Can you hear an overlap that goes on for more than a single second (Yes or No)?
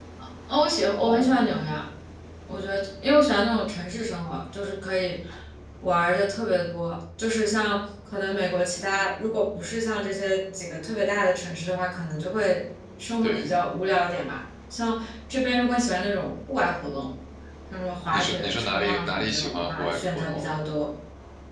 Yes